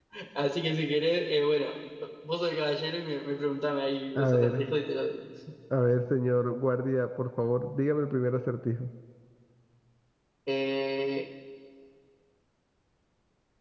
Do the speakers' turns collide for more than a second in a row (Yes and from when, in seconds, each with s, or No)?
No